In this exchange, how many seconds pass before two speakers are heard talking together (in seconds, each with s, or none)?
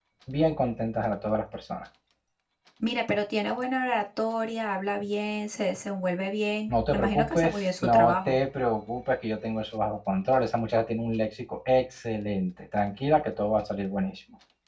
6.7 s